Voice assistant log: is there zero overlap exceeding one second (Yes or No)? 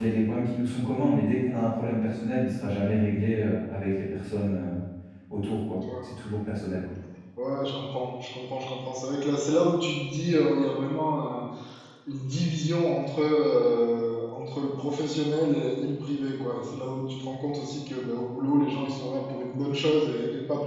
Yes